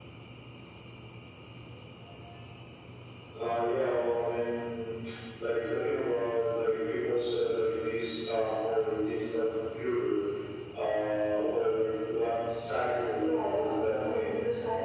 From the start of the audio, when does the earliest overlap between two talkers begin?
13.1 s

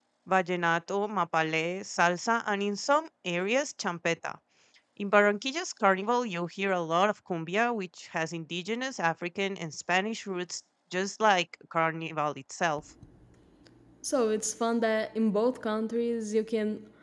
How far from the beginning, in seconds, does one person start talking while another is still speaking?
none

